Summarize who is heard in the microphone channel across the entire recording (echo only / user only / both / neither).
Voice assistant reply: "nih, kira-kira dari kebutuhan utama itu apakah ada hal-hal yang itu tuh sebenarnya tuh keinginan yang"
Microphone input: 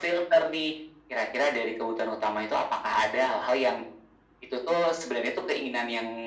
echo only